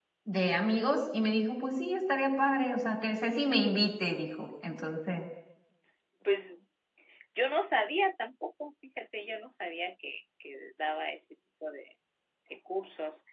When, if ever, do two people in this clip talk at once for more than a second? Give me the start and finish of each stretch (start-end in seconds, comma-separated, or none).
none